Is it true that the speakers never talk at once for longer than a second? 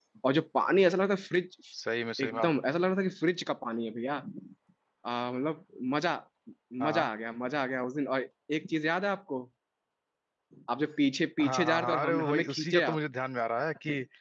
No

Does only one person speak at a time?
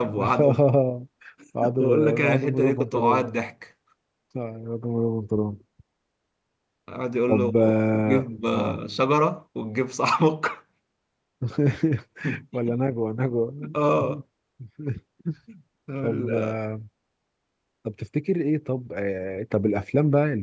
No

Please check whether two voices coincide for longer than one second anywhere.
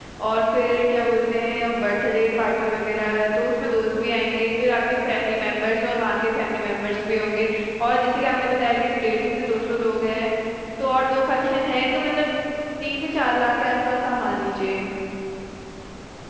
No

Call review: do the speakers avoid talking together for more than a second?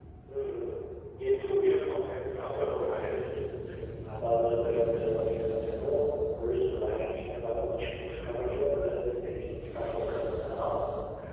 No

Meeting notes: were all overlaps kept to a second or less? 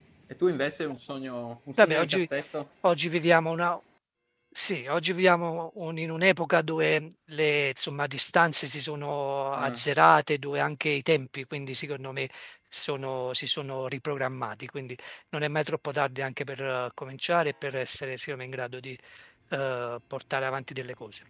Yes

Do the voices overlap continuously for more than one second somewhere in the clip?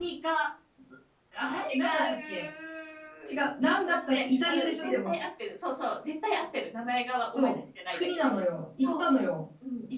Yes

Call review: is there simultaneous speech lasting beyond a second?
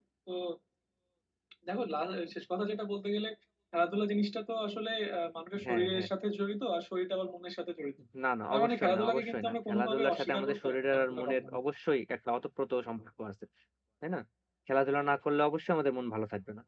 Yes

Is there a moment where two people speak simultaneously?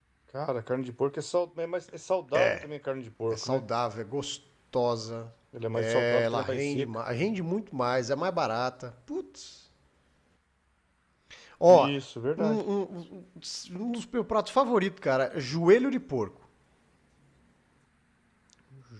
Yes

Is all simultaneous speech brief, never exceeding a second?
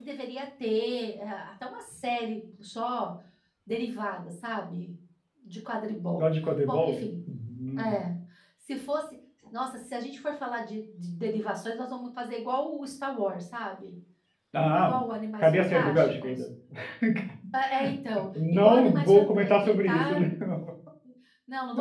No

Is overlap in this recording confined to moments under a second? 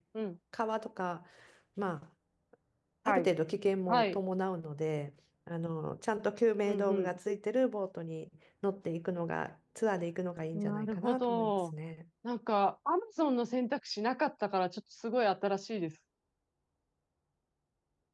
No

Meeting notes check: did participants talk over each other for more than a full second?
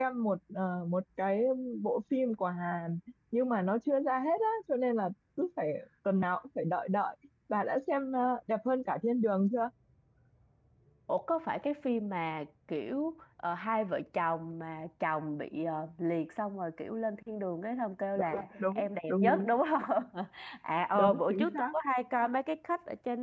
Yes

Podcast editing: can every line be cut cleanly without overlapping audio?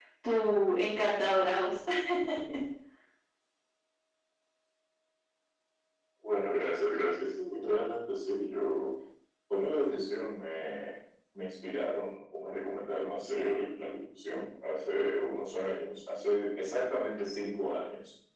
Yes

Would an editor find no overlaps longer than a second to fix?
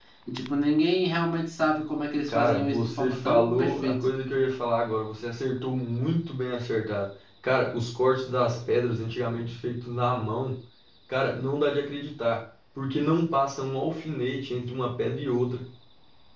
No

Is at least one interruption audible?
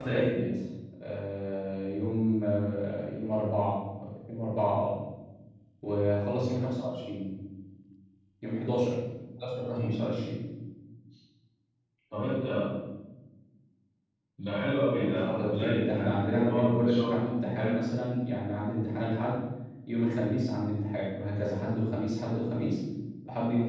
Yes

